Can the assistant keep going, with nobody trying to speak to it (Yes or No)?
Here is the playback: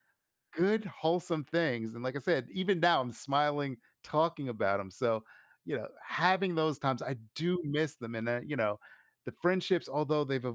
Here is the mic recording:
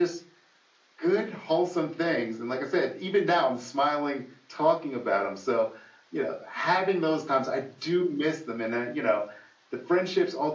Yes